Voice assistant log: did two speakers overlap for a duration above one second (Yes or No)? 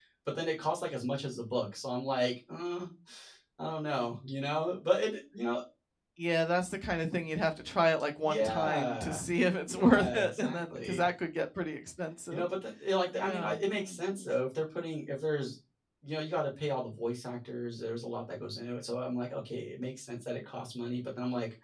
Yes